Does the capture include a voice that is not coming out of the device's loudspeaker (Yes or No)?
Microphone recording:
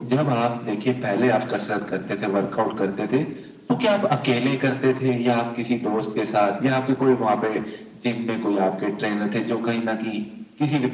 No